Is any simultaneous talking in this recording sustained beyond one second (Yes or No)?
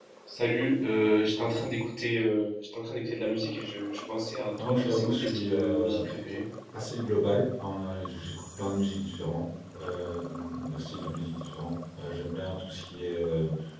Yes